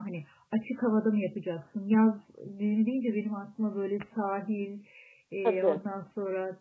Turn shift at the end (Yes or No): No